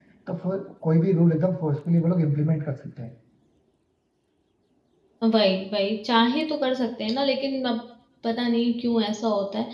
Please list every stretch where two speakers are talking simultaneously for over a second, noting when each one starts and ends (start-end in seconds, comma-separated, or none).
none